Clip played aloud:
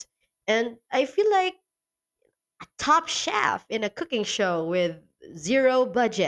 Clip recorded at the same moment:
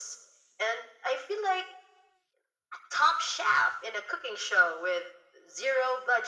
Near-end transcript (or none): none